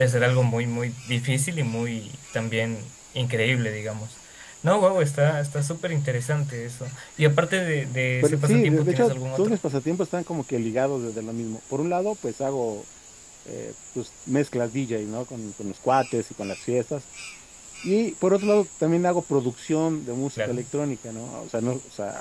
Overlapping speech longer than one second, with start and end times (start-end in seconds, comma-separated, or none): 8.2-9.6